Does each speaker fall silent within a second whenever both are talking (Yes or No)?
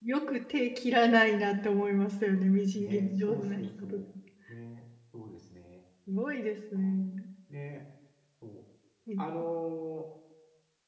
No